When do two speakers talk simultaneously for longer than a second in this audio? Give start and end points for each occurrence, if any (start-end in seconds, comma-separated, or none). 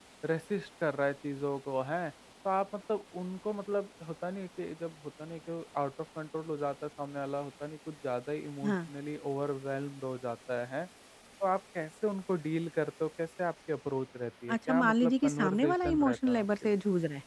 14.7-16.8